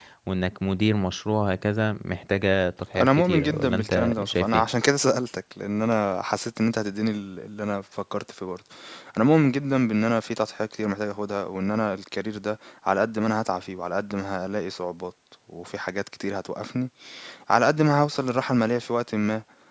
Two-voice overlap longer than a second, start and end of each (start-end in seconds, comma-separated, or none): 3.0-4.6